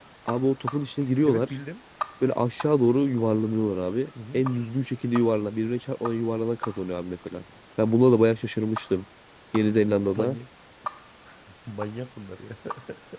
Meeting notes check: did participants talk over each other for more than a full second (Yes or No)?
No